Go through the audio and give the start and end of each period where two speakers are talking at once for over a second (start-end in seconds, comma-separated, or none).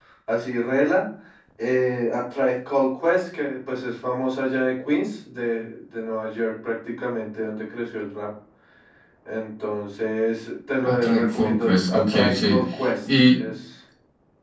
10.8-12.6